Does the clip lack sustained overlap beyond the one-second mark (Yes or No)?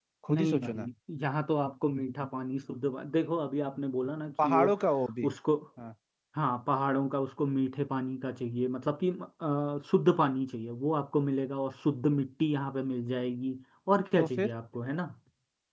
Yes